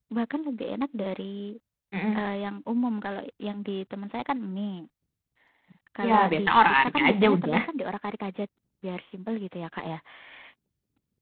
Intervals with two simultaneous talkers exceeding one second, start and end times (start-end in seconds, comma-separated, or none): 6.1-7.6